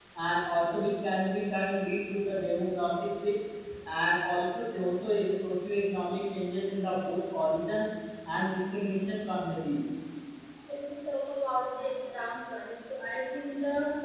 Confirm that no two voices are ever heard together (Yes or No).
Yes